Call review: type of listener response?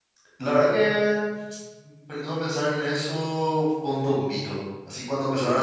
listening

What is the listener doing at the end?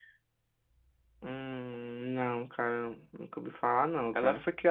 taking over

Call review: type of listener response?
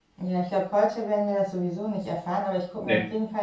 listening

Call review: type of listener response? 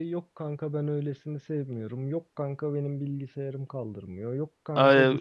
taking over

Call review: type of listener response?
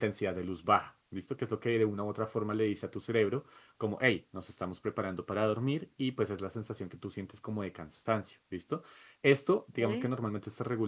listening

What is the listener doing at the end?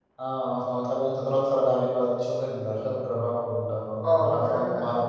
taking over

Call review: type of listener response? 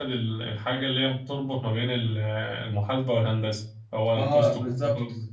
taking over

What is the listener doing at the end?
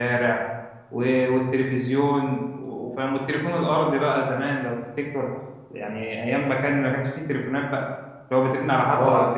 listening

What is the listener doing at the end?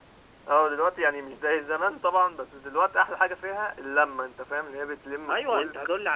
taking over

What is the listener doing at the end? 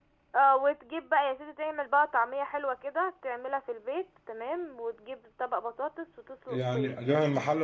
taking over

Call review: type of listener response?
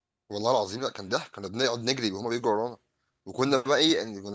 listening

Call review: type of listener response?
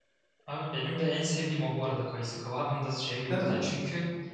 listening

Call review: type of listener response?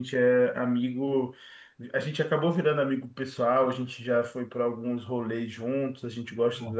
listening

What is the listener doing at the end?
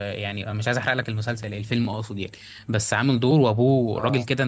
listening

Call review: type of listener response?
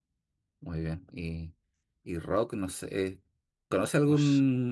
listening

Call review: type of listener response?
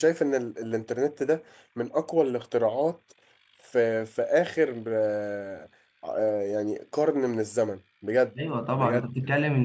taking over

